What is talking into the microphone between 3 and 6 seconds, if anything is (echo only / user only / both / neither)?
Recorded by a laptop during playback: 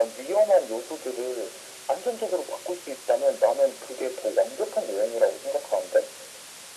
echo only